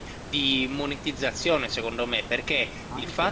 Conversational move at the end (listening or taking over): listening